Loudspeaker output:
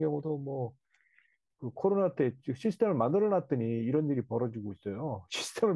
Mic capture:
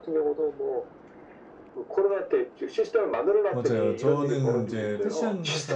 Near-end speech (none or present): present